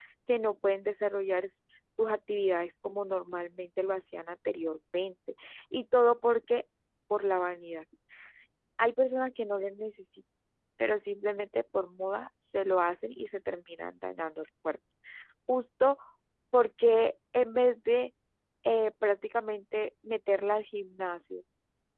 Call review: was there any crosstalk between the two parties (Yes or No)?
No